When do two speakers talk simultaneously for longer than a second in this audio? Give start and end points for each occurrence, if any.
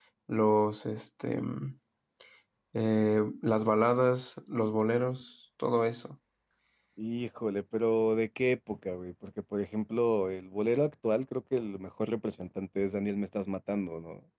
none

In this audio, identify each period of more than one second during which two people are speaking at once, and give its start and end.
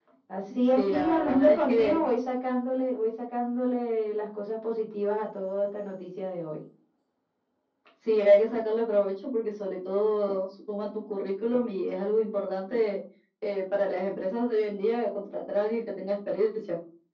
0.6-2.0

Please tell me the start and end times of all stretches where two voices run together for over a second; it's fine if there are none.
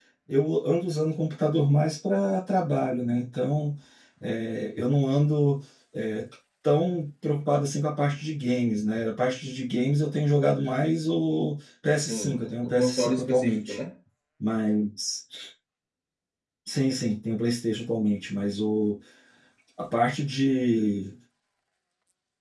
12.0-13.8

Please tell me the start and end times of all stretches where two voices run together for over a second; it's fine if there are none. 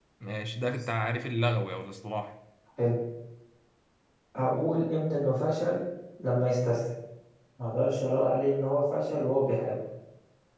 none

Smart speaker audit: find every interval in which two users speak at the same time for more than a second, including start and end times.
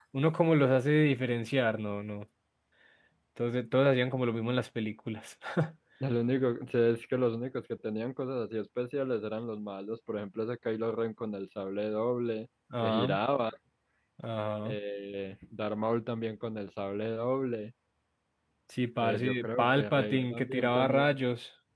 19.0-21.1

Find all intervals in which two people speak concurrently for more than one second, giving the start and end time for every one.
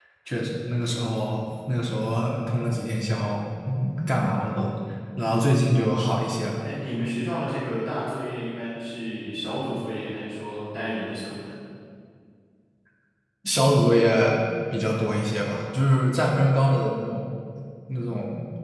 none

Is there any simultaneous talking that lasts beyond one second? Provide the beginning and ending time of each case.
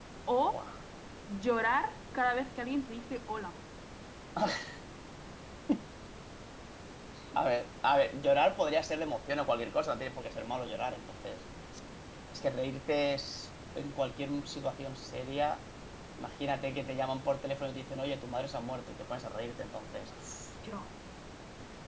none

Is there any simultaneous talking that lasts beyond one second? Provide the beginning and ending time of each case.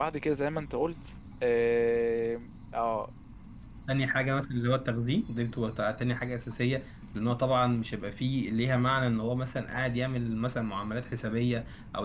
none

